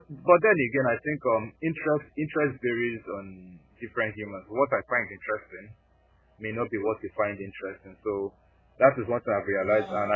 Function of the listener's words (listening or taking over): listening